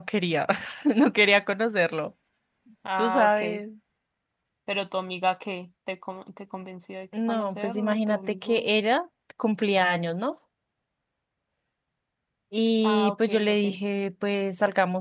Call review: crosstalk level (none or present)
present